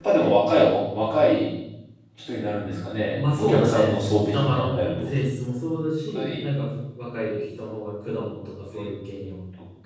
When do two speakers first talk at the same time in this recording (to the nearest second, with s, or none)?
3 s